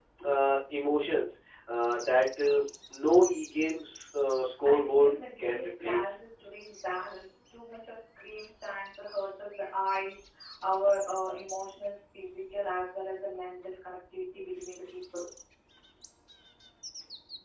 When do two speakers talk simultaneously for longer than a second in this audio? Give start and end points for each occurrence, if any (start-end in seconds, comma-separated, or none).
4.7-6.2